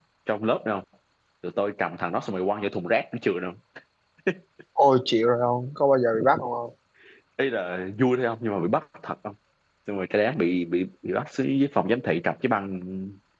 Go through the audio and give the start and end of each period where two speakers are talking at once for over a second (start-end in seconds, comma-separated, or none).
none